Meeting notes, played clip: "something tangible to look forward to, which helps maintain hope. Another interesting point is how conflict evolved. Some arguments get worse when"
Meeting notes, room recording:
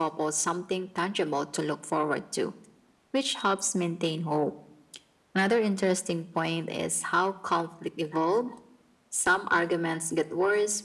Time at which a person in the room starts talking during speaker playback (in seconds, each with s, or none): none